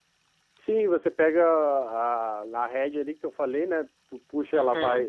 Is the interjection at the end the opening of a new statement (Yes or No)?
No